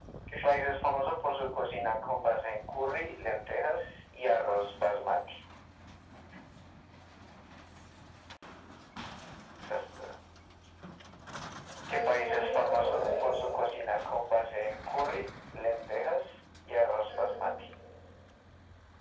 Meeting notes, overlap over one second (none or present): present